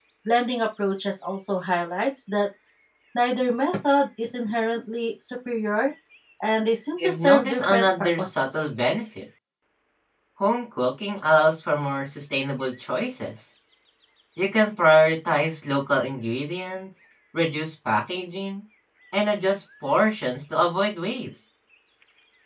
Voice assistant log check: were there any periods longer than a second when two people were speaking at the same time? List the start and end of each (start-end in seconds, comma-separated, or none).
7.0-8.6